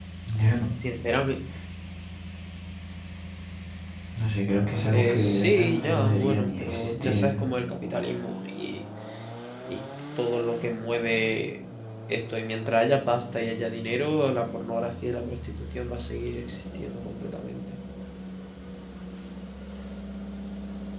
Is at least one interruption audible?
Yes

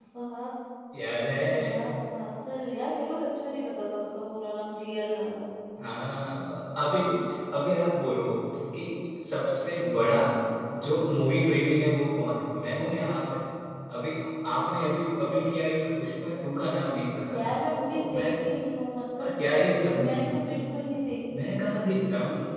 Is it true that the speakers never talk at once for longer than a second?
Yes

